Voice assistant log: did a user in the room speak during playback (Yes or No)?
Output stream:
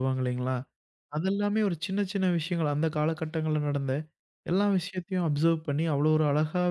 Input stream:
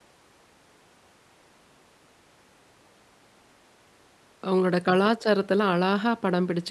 Yes